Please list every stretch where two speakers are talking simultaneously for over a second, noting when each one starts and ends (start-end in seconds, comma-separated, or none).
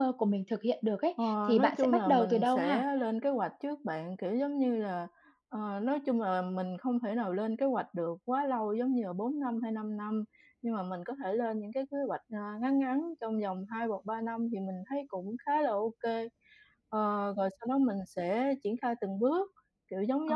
1.2-2.9